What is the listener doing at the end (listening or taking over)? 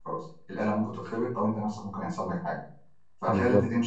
listening